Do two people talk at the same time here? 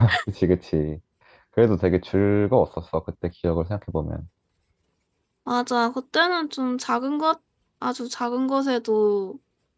No

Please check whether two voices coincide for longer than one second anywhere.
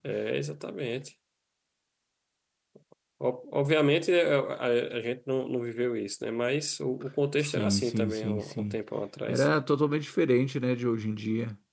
Yes, from 7.4 s

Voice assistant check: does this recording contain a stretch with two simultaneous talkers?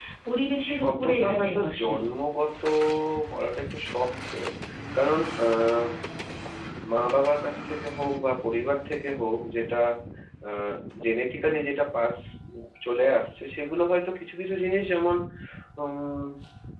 Yes, from 0.7 s

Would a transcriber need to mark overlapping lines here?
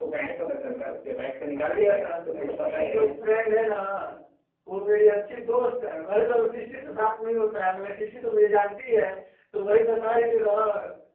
Yes, from 1.5 s

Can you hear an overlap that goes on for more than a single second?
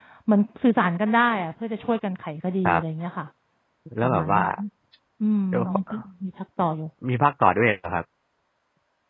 No

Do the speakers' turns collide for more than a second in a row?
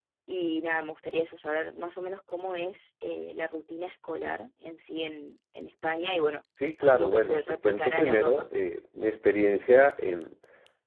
Yes, from 6.8 s

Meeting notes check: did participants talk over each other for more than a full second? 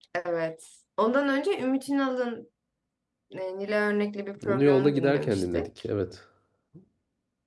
Yes, from 4.4 s

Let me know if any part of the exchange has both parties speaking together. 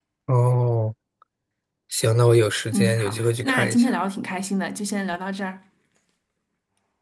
Yes, from 2.7 s

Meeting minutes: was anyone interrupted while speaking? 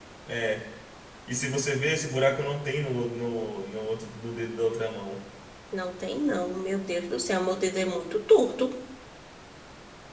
No

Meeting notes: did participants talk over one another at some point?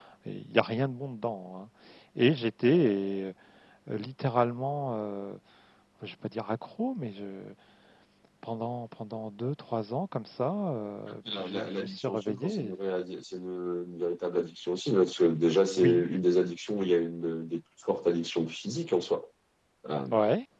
Yes, from 11.1 s

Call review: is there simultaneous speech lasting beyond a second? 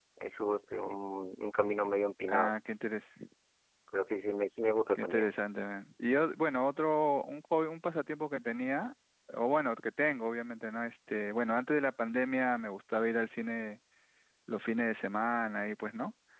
No

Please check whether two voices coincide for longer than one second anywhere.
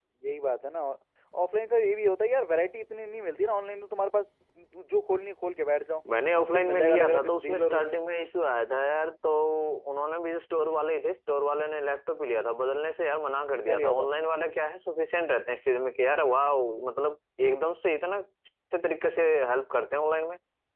Yes, from 6.5 s

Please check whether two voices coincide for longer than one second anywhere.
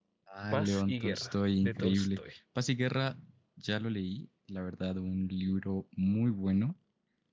Yes, from 0.5 s

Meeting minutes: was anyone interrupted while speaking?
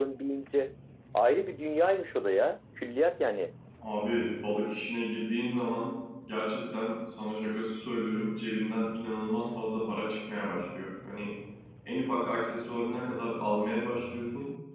No

